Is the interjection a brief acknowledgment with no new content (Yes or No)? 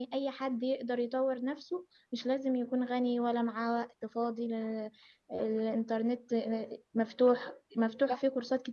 Yes